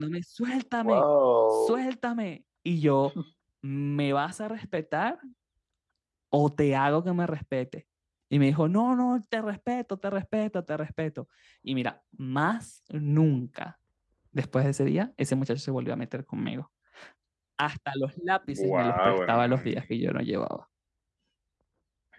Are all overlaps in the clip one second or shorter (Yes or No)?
No